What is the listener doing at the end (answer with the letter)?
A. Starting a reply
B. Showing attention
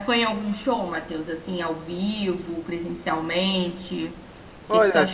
A